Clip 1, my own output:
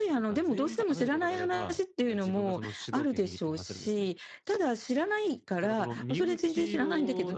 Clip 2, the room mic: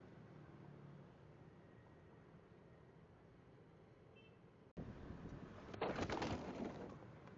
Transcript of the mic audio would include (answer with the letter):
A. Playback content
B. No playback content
B